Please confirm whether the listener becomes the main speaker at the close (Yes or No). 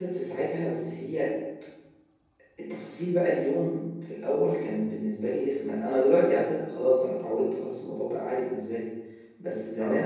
No